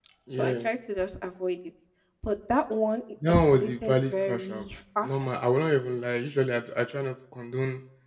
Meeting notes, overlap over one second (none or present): present